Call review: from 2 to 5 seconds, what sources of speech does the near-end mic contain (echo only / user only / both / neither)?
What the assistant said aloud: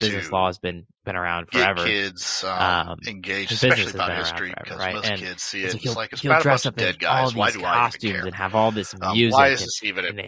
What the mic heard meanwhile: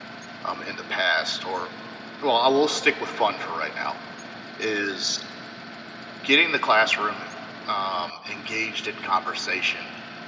user only